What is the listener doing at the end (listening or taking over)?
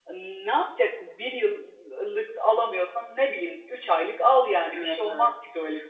taking over